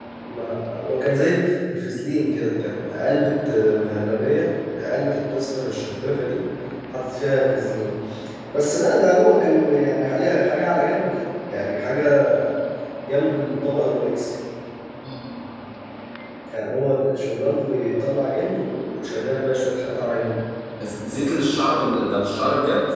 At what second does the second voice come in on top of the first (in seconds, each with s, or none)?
none